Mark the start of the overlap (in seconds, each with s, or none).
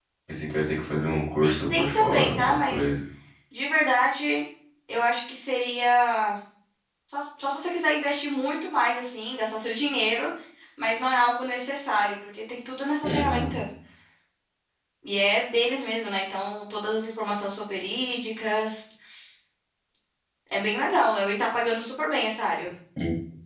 1.4 s